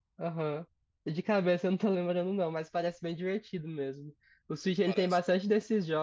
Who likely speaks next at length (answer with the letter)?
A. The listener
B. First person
B